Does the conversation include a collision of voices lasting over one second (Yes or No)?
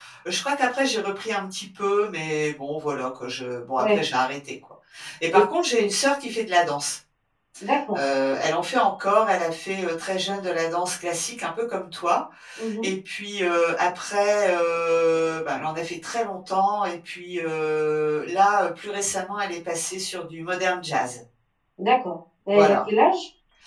No